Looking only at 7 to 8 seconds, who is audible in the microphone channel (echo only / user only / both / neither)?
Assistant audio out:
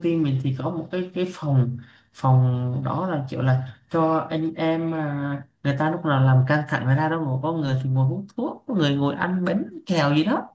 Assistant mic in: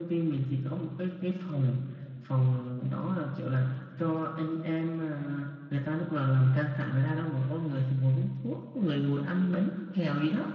echo only